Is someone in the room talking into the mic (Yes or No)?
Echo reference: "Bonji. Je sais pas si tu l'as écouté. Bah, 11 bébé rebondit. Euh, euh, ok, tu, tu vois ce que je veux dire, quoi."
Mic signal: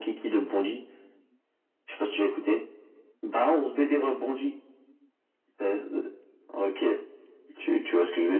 No